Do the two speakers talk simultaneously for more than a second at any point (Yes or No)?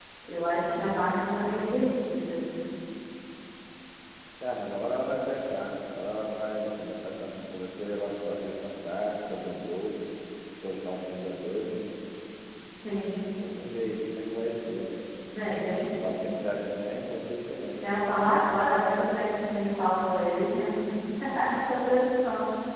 No